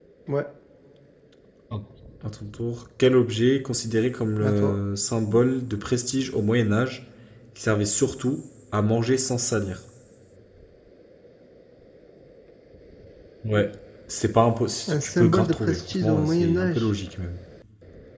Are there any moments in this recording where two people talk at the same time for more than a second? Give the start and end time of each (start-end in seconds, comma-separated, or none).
14.9-16.9